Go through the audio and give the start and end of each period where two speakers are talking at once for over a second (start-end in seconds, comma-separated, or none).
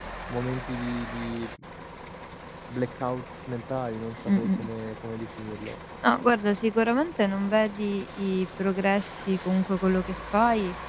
none